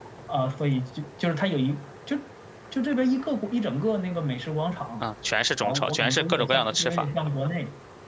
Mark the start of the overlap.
5.6 s

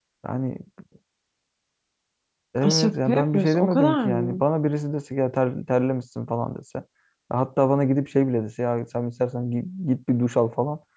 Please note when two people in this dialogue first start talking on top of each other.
2.6 s

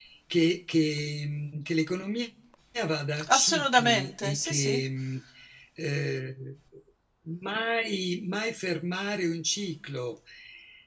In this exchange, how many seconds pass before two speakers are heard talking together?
3.3 s

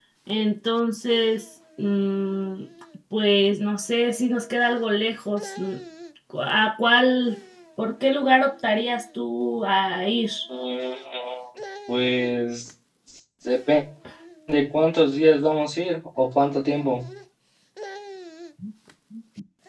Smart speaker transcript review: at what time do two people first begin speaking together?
none

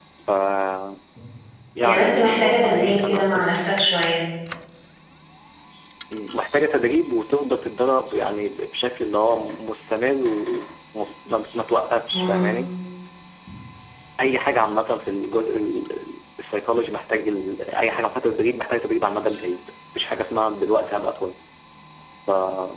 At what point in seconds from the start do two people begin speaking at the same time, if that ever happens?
1.8 s

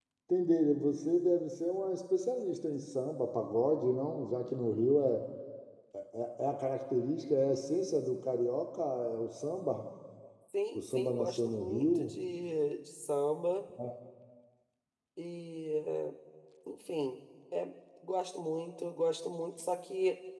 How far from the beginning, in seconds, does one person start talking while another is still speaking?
10.8 s

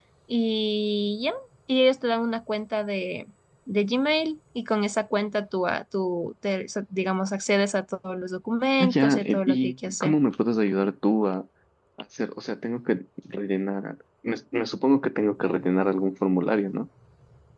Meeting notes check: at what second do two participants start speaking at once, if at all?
8.8 s

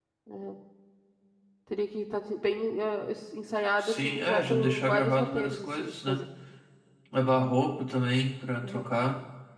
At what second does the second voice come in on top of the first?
3.8 s

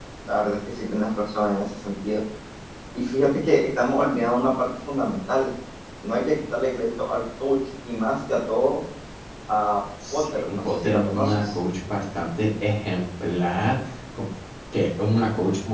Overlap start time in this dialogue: 10.1 s

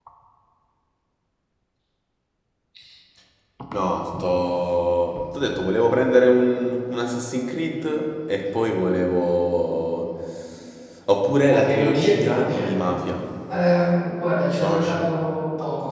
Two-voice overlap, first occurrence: 11.5 s

